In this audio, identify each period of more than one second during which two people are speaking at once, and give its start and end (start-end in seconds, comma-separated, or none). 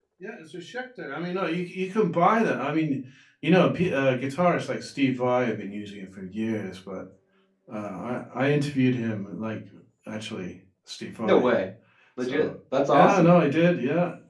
none